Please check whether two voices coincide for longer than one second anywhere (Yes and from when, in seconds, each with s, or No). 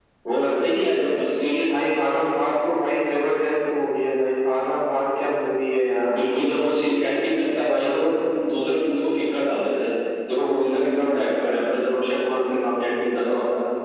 No